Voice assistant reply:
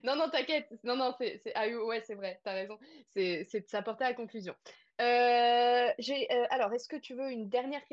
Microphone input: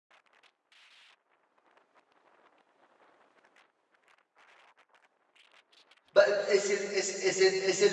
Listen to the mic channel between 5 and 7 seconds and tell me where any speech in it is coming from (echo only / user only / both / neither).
user only